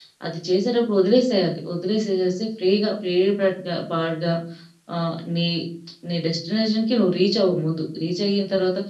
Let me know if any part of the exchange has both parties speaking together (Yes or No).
No